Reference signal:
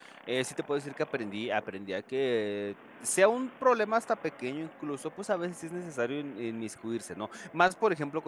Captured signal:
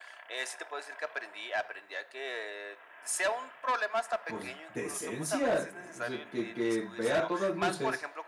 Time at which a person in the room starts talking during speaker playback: 4.2 s

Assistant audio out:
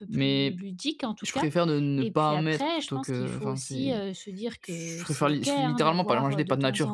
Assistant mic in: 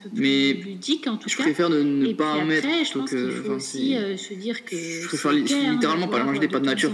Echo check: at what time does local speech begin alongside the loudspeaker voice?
none

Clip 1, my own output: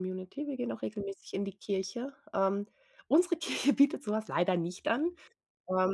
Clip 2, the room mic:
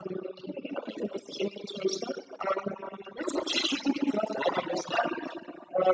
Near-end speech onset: none

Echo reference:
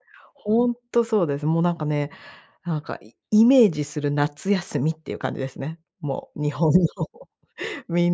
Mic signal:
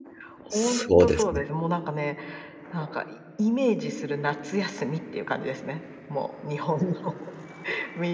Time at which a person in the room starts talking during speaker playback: 0.5 s

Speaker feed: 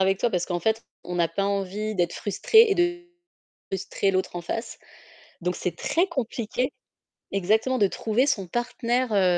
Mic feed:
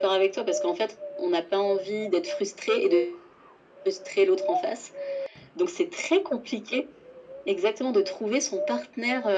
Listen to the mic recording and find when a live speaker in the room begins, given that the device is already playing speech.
none

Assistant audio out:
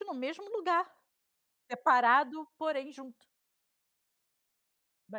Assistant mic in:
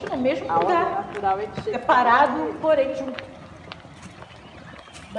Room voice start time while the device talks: 0.5 s

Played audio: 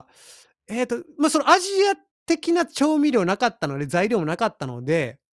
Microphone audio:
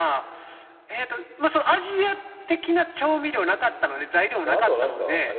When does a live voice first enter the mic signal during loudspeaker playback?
4.4 s

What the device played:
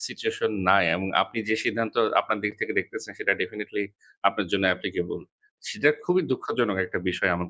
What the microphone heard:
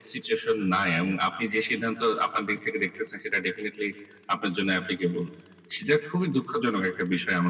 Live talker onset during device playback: none

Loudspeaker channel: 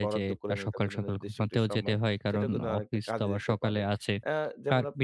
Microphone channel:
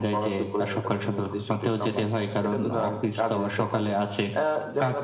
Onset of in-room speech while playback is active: none

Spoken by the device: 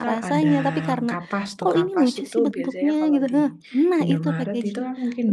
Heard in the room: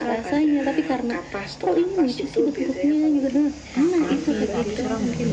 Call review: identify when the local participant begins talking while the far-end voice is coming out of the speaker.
3.8 s

